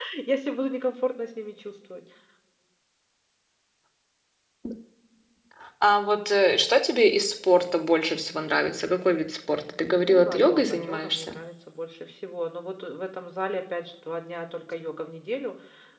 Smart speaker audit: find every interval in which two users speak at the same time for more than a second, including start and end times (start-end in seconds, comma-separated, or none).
10.0-11.4